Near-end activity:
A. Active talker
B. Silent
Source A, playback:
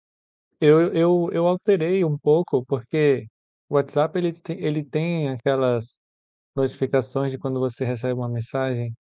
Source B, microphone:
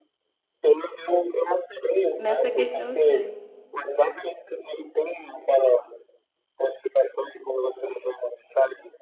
A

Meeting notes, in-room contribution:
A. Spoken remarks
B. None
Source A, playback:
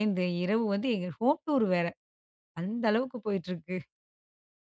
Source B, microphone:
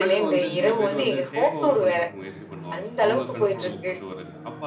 A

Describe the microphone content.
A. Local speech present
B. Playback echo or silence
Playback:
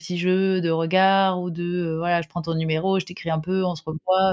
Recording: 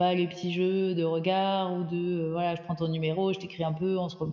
B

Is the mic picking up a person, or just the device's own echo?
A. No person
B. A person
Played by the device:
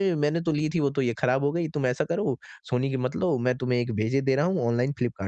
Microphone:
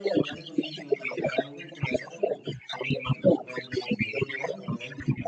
A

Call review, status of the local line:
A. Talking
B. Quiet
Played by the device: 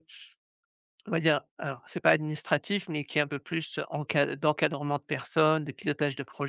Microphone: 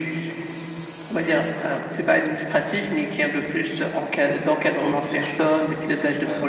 A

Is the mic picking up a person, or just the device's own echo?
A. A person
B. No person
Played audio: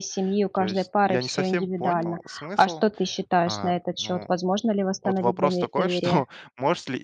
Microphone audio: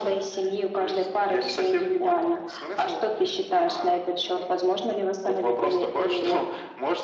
B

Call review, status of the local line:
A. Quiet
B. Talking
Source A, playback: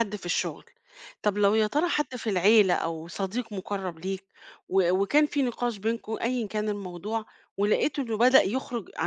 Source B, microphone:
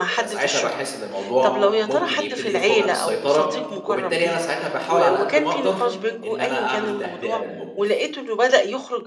B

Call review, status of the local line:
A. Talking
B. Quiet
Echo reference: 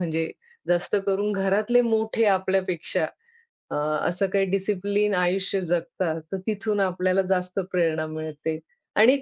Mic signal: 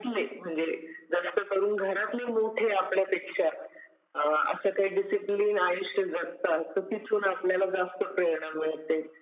B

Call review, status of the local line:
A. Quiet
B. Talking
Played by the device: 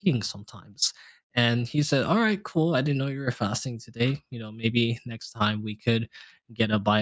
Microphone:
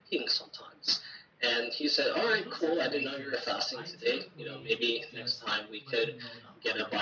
B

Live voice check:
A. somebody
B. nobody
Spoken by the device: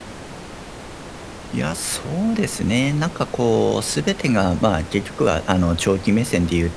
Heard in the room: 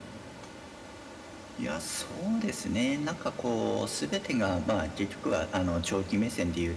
B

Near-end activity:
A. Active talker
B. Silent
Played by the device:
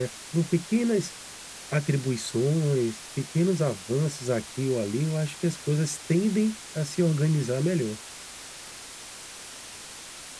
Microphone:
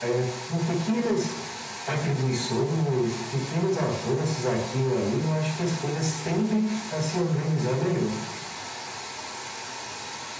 B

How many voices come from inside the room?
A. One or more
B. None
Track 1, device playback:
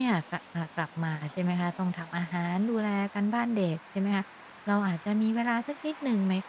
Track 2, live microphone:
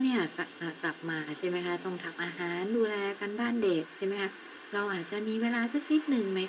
B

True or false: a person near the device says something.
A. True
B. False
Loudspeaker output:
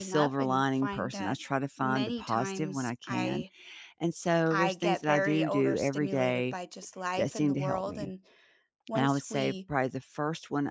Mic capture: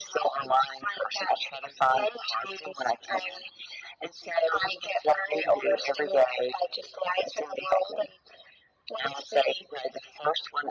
B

